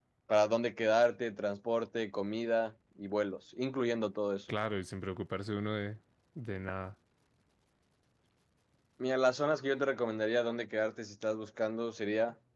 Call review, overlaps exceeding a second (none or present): none